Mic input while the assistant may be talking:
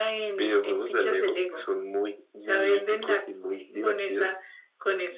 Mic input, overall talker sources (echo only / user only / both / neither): echo only